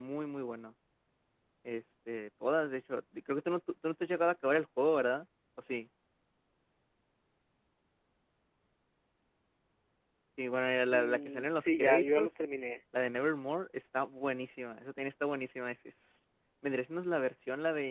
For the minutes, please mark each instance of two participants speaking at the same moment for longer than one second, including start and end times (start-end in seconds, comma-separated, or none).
10.9-12.4